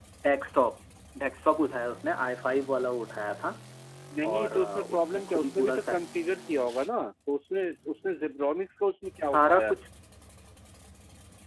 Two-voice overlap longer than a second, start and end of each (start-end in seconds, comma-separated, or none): 4.3-6.0